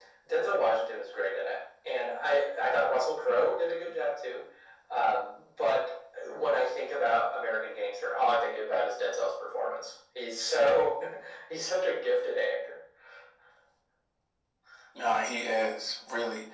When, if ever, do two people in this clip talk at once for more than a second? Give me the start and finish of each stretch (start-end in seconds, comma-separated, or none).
none